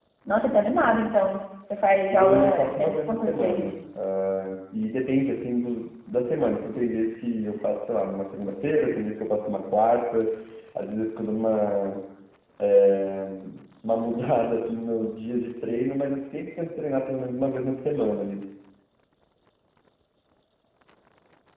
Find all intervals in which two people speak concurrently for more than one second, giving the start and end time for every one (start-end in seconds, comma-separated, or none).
2.1-3.7